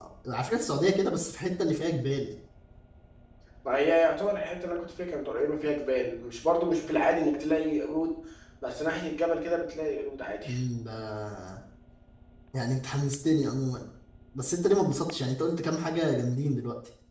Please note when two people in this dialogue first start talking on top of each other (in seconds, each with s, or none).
none